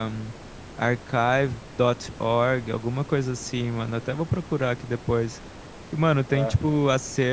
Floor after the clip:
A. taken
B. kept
B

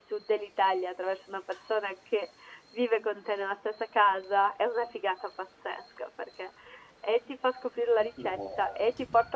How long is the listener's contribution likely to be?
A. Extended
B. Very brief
B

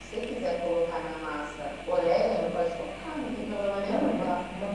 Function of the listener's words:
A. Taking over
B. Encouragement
A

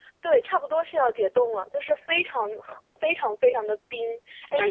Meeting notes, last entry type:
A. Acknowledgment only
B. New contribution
A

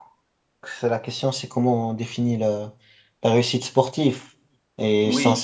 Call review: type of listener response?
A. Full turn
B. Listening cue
B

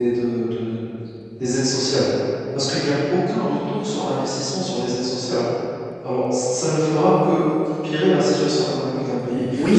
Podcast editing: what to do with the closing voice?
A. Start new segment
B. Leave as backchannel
A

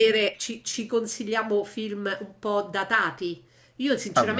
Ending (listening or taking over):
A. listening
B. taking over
A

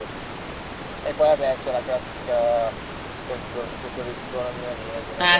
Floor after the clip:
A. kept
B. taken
B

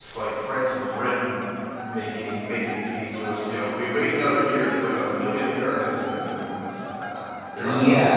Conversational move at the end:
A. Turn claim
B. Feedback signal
A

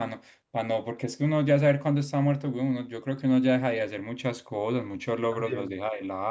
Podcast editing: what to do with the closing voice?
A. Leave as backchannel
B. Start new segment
B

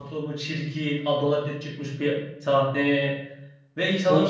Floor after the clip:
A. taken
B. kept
A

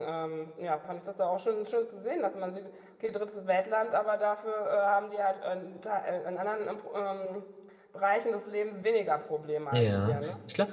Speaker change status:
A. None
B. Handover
B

